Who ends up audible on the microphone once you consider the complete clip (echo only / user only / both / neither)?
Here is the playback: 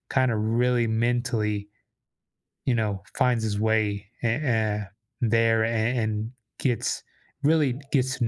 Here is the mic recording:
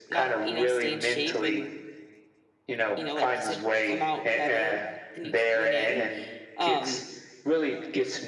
both